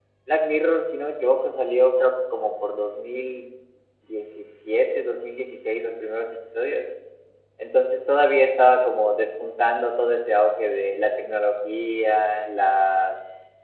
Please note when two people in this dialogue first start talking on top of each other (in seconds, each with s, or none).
none